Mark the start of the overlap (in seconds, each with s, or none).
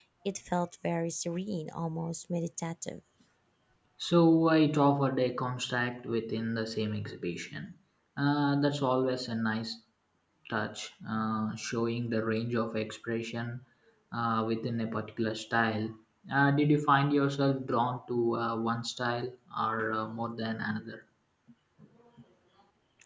none